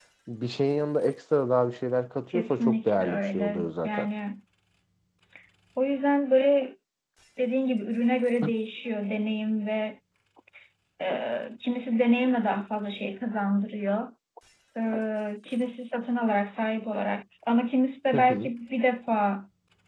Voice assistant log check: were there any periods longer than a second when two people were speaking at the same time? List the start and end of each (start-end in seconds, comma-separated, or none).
2.3-4.1